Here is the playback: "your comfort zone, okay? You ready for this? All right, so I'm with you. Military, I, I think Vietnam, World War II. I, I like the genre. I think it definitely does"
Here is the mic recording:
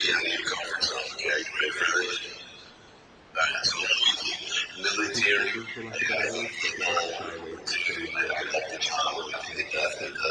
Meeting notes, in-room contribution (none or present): present